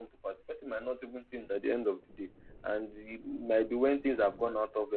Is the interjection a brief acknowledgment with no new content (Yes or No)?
Yes